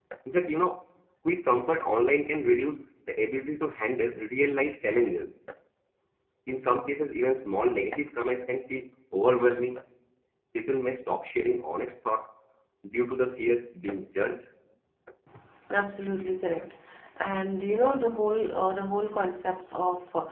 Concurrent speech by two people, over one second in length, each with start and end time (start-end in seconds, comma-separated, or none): none